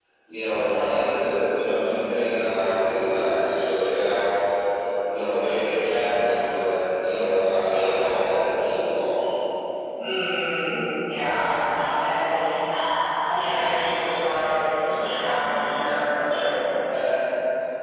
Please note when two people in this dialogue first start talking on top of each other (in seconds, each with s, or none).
none